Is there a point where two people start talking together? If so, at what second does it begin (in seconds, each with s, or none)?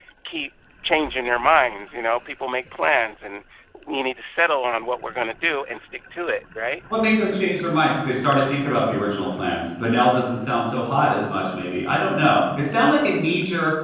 none